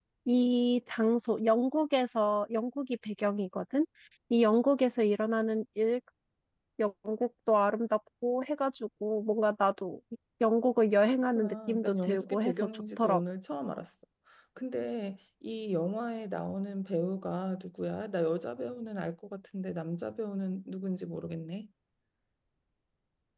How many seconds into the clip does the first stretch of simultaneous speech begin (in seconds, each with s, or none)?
11.3 s